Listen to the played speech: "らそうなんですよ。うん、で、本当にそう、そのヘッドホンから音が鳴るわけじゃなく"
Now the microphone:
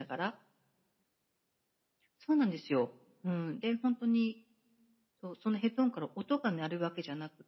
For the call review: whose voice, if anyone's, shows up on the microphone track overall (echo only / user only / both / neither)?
echo only